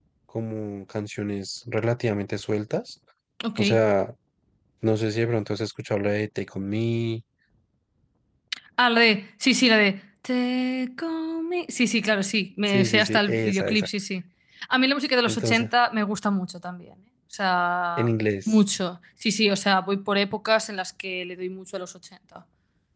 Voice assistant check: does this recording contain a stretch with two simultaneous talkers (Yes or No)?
Yes